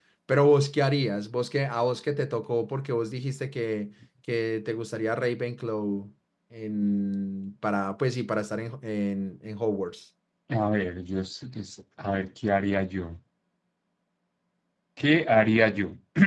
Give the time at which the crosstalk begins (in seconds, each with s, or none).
none